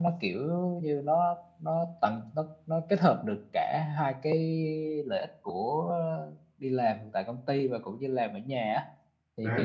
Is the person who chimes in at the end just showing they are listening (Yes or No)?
Yes